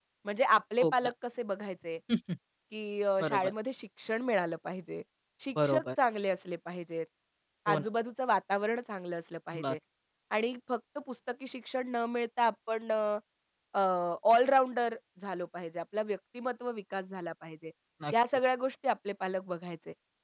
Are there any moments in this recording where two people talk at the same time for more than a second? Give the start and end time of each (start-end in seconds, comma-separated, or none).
none